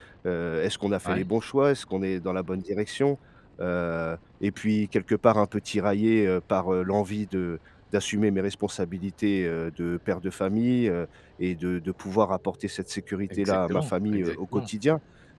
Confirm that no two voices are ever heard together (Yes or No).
No